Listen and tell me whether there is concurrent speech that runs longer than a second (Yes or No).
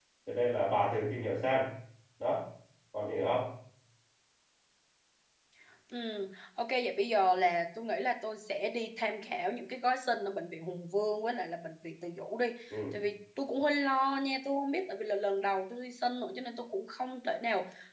No